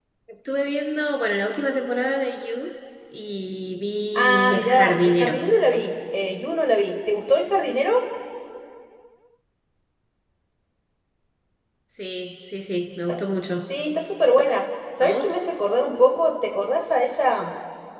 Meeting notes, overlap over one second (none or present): present